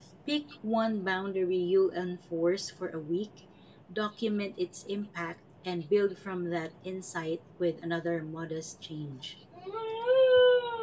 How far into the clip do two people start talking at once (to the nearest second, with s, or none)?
none